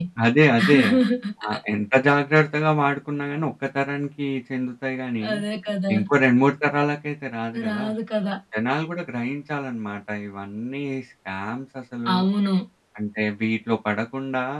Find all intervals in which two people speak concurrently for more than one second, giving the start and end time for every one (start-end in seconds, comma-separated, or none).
none